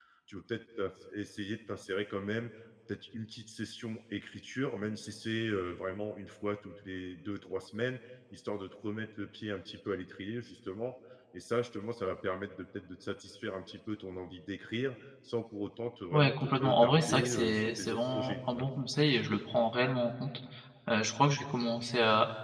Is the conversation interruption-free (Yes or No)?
No